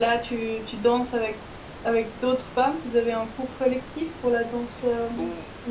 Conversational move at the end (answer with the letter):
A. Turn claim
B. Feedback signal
A